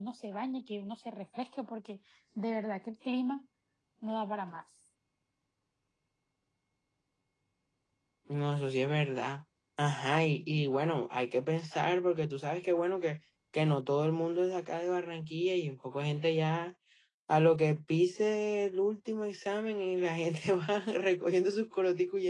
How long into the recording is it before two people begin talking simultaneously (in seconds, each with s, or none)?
none